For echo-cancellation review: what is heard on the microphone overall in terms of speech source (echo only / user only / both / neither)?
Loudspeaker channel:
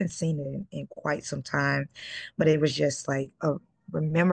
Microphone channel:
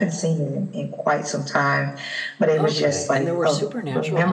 both